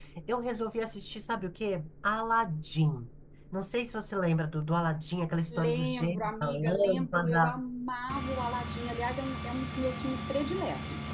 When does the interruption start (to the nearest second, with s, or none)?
6 s